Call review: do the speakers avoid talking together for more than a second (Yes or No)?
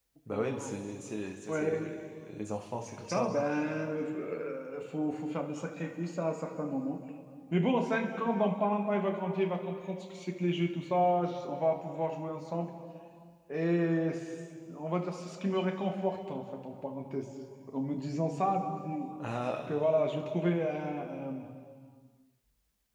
Yes